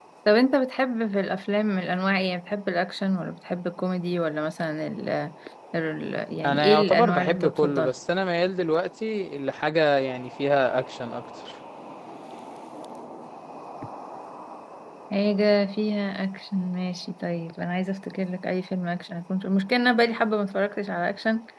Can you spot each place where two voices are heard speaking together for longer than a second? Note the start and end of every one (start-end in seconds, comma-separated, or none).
6.4-7.9